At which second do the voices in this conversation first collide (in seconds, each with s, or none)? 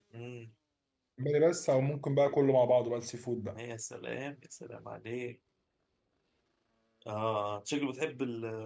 none